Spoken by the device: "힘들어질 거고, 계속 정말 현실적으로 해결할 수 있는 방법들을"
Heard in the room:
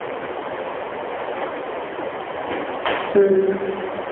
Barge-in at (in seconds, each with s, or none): 3.2 s